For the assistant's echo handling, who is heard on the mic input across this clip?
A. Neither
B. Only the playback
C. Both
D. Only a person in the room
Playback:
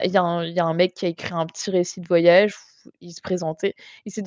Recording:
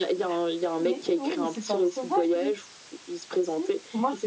C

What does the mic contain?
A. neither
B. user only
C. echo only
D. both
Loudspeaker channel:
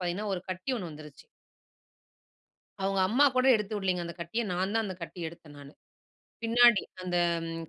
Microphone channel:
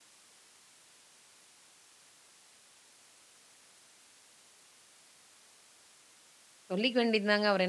B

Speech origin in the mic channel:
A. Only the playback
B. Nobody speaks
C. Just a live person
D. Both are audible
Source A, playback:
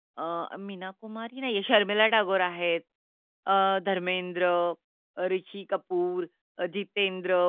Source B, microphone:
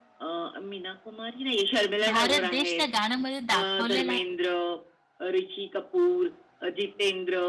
D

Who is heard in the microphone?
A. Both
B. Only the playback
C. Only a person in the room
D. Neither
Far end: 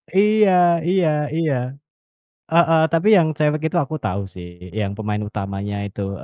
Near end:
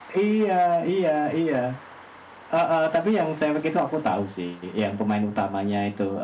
B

